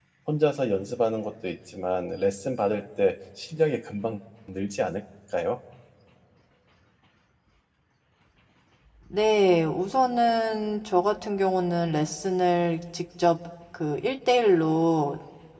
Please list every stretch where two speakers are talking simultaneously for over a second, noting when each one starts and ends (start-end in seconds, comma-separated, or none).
none